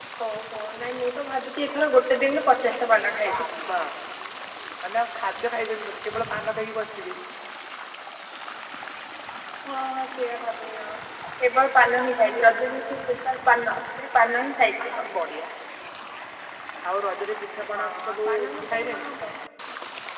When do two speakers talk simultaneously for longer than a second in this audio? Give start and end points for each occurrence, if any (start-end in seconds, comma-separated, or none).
17.7-19.1